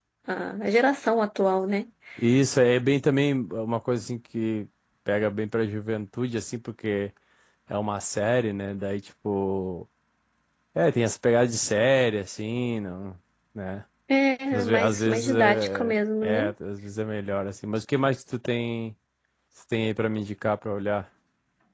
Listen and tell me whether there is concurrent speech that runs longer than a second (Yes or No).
Yes